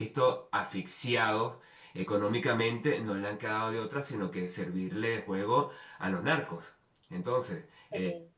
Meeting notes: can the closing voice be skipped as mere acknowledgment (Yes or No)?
Yes